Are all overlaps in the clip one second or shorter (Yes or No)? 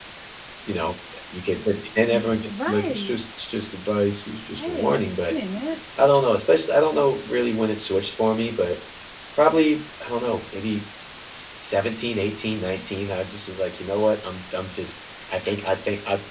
No